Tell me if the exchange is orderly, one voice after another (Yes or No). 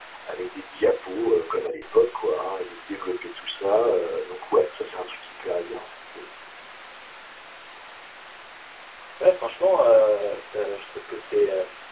Yes